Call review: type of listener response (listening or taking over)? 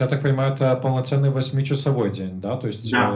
listening